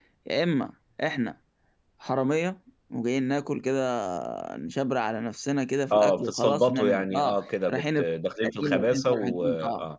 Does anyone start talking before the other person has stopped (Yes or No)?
Yes